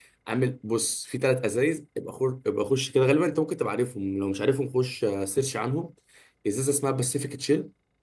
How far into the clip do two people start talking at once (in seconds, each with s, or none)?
none